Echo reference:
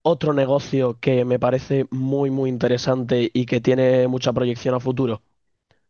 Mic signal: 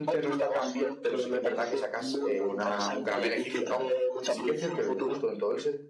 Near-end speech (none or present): present